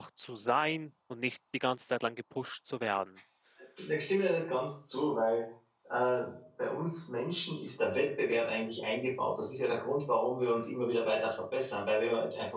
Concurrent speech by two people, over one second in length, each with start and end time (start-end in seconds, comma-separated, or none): none